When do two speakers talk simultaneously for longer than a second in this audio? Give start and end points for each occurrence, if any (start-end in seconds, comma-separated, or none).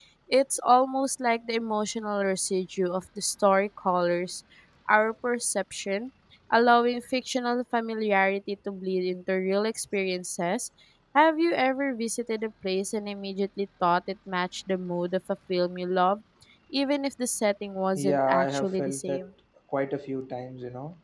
17.9-19.2